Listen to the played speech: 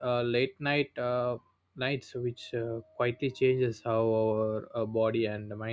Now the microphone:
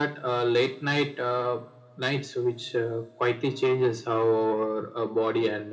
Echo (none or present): present